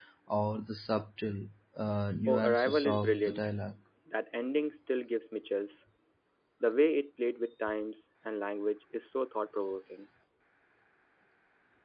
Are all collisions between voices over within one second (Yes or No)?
No